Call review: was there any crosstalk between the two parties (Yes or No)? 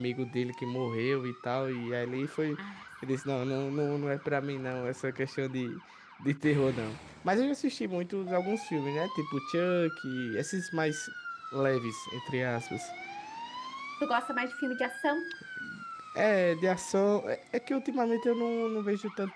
No